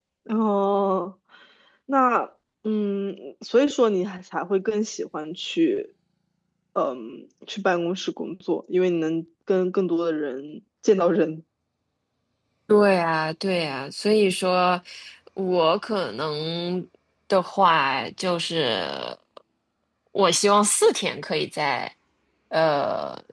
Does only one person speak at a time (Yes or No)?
Yes